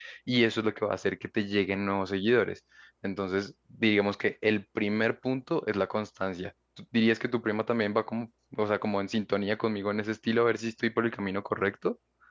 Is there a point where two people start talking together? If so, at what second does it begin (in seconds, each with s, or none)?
none